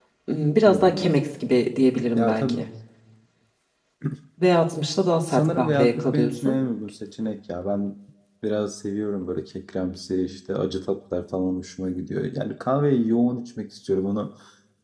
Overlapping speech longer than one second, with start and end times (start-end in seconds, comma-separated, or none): 5.3-6.6